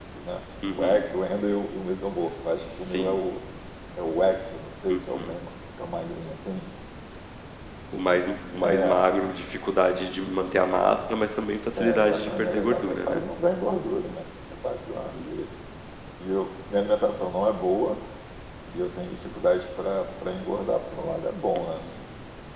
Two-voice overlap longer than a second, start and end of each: 11.8-13.2

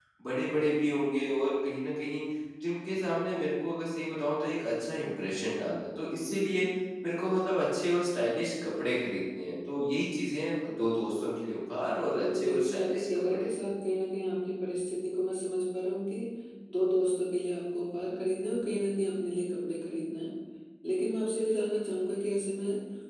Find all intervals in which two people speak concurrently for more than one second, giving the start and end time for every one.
12.1-13.5

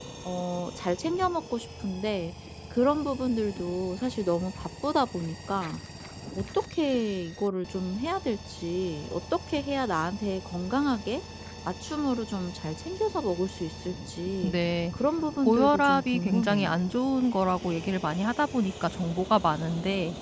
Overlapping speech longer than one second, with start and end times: 15.4-16.8

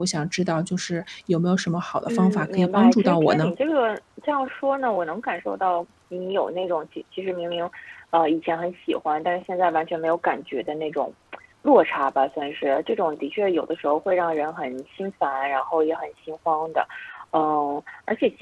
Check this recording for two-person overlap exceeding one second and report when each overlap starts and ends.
2.1-3.5

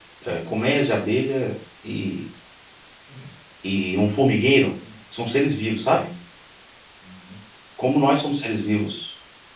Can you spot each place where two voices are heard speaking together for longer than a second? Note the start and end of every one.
none

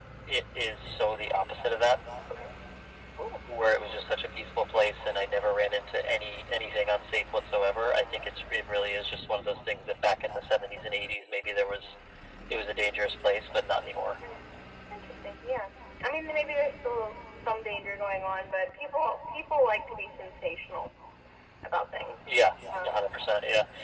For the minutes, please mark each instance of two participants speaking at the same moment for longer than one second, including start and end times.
none

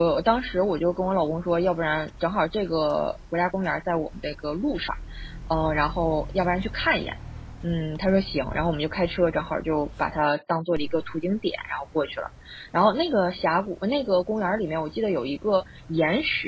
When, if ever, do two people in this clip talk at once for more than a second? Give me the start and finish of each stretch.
none

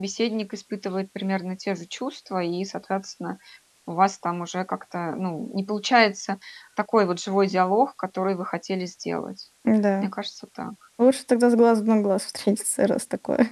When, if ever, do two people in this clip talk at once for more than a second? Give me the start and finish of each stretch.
none

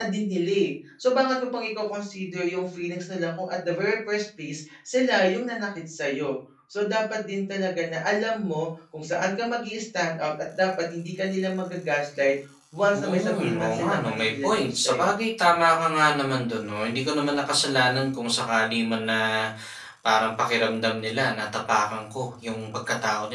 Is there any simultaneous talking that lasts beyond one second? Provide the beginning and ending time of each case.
12.9-15.1

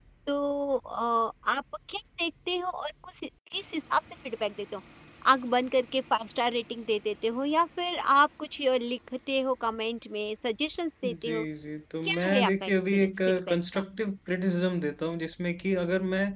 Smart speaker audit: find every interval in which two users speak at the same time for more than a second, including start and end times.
12.1-13.8

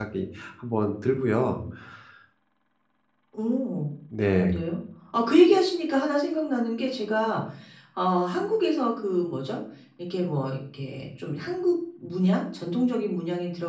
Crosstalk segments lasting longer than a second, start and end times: none

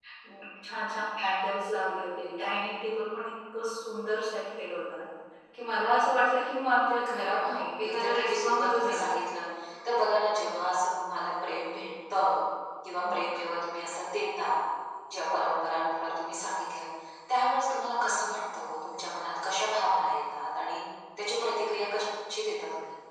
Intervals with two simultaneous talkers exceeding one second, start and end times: 7.2-9.2

